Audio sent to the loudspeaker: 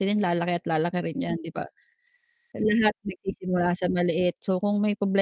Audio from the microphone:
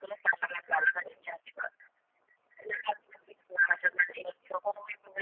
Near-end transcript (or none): none